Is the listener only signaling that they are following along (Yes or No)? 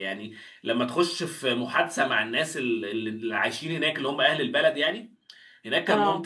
Yes